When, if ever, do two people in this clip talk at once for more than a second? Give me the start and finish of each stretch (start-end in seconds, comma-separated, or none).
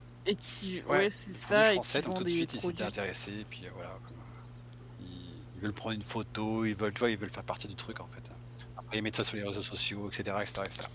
0.9-2.9